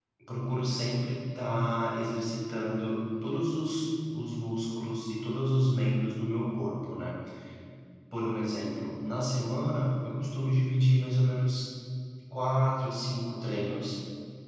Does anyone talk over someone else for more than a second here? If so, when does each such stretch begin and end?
none

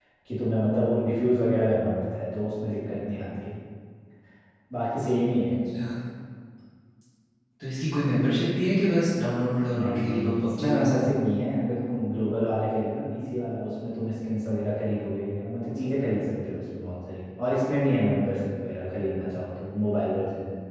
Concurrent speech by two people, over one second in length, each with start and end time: 9.7-11.0

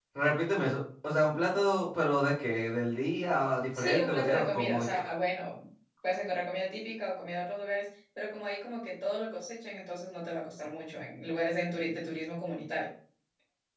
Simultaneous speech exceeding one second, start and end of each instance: 3.8-5.0

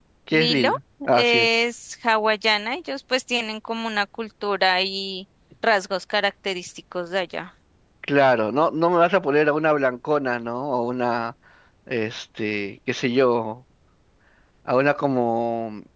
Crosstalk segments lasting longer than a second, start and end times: none

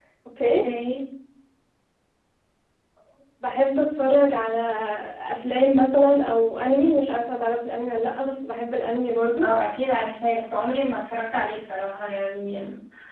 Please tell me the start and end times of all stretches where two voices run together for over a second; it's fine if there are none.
none

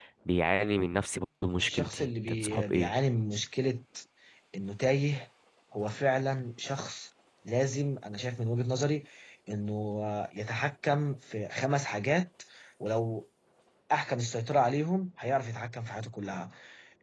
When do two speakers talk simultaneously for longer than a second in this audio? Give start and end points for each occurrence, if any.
1.6-2.9

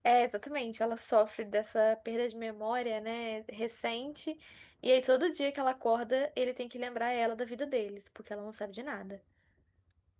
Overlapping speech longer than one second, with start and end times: none

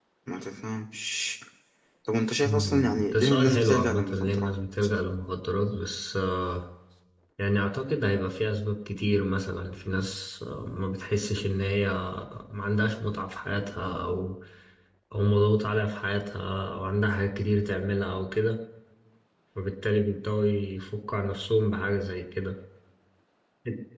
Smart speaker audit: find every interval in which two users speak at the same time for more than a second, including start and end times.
2.4-4.5

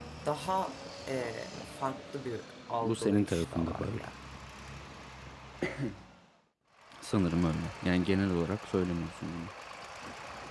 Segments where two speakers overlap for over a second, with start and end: 2.8-4.0

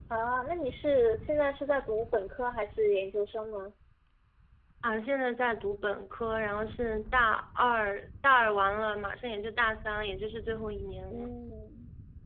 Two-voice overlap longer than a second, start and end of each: none

